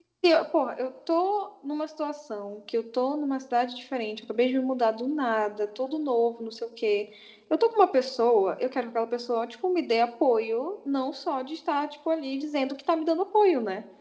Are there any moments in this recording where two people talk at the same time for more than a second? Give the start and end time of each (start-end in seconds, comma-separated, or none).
none